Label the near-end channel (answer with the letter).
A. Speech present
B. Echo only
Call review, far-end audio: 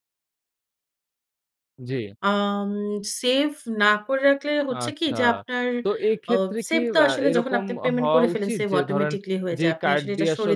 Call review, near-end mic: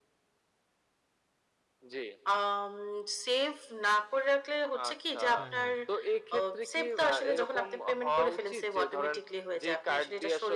A